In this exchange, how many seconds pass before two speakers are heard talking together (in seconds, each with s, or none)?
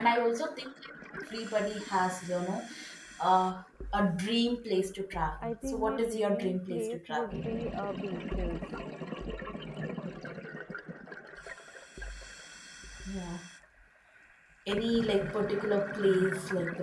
5.4 s